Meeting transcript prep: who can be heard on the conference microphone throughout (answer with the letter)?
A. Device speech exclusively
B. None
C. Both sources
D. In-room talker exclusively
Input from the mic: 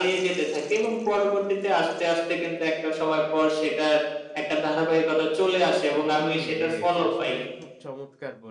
C